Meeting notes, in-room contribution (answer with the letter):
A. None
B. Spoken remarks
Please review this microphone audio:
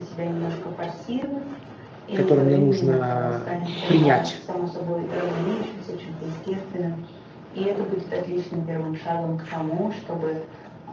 B